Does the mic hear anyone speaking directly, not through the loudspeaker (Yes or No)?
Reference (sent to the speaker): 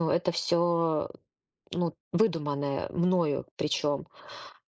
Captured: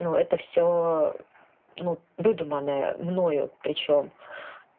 No